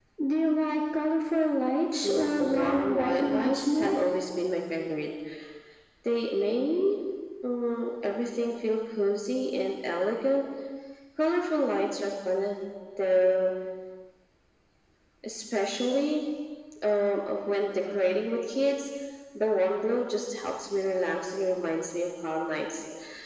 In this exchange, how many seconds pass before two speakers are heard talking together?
2.0 s

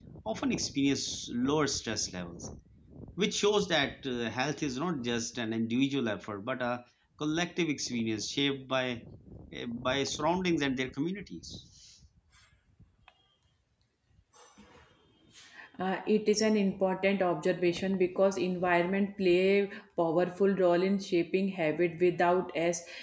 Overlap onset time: none

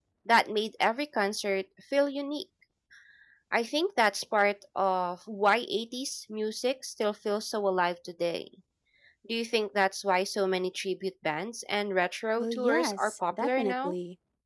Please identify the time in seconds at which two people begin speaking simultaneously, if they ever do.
12.4 s

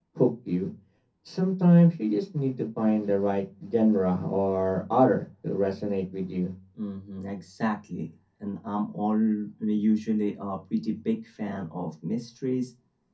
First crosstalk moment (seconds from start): none

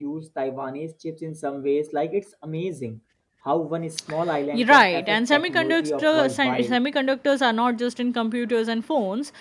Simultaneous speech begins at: 4.5 s

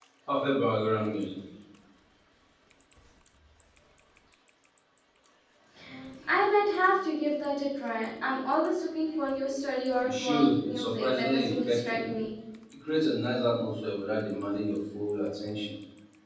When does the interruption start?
10.0 s

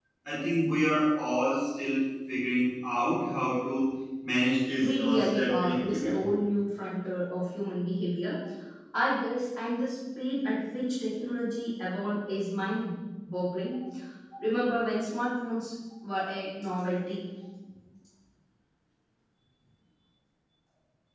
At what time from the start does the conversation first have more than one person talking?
4.8 s

